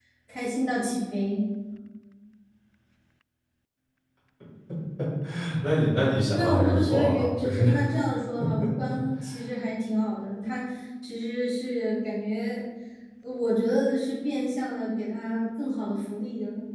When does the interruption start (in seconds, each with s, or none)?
6.3 s